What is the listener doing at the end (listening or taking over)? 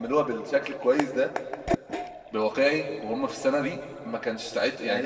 taking over